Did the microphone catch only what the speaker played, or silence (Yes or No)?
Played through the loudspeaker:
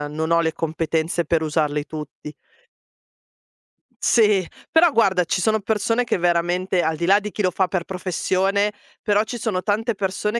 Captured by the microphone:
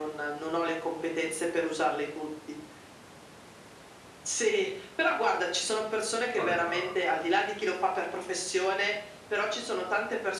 No